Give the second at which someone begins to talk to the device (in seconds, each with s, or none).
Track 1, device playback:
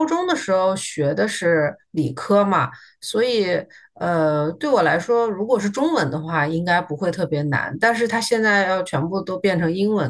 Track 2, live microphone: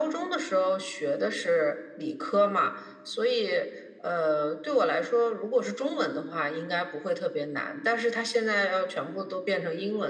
none